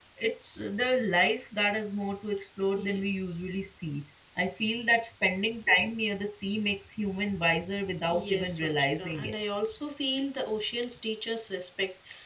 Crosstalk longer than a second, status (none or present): present